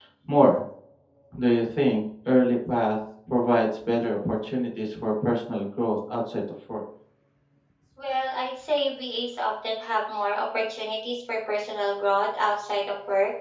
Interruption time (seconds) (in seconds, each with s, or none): none